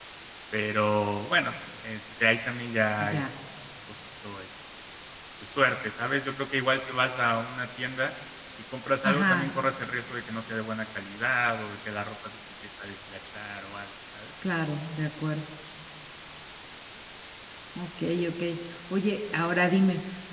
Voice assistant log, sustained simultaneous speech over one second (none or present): none